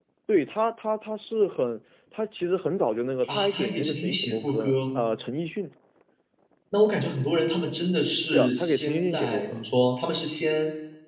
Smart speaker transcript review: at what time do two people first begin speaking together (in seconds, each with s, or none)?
3.2 s